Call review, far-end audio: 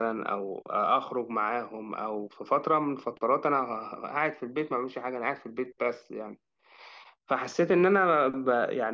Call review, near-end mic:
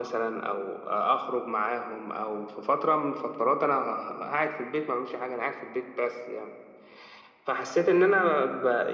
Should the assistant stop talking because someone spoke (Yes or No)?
No